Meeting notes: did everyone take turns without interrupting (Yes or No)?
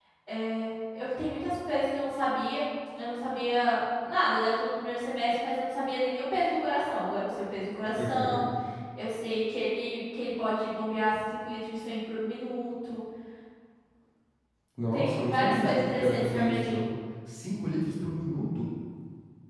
No